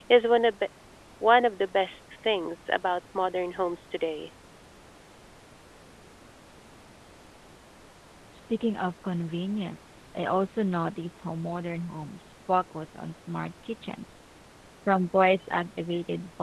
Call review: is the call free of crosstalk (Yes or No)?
Yes